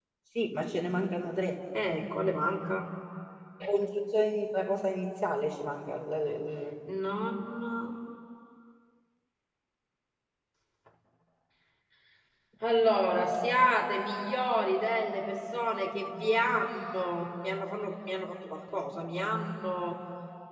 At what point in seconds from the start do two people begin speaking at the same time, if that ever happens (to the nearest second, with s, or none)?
none